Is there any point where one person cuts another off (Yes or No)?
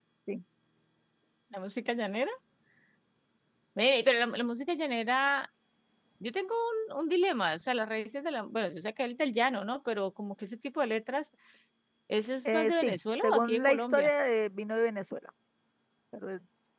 Yes